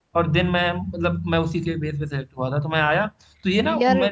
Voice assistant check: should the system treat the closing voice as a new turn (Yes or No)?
No